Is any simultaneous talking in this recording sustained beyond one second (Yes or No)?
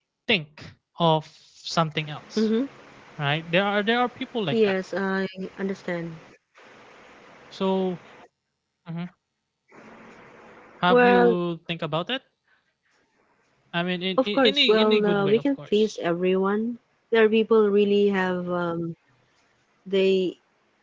Yes